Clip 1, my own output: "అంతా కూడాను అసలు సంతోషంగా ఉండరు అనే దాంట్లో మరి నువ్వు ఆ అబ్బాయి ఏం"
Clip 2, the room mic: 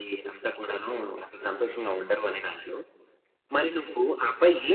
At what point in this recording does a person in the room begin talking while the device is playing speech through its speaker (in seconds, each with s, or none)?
none